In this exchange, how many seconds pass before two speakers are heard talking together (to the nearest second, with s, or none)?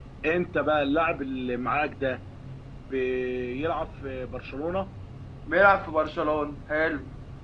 none